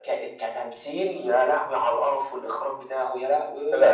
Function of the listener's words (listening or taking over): taking over